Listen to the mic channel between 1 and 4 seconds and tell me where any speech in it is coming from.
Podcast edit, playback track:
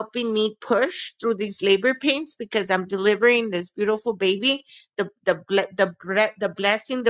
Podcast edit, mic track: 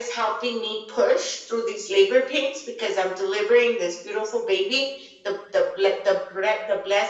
echo only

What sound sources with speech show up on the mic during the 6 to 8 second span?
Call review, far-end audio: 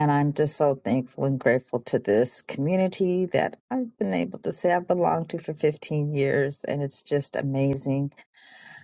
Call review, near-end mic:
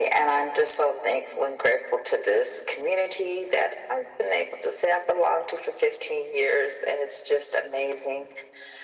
echo only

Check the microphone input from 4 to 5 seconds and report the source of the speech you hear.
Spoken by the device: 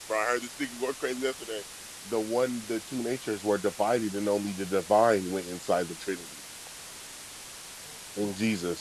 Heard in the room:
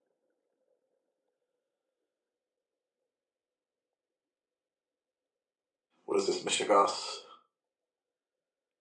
neither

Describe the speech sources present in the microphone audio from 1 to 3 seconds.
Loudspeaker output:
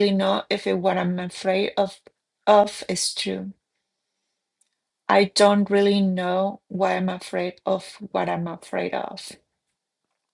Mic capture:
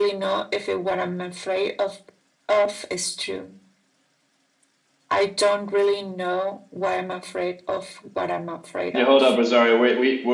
echo only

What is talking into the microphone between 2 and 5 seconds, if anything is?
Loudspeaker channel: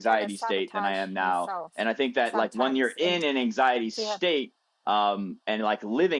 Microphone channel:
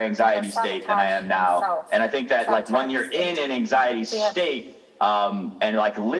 echo only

